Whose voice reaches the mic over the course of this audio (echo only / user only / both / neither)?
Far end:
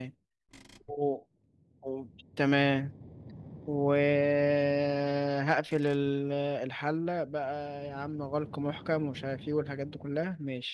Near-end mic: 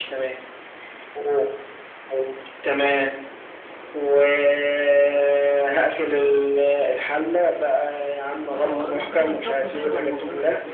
both